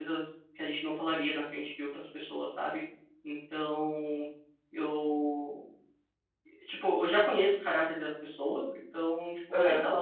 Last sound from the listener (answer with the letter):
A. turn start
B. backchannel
B